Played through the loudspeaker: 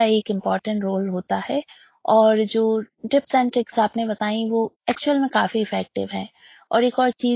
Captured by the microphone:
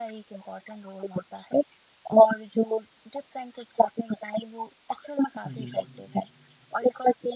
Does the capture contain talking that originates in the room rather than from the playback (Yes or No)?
Yes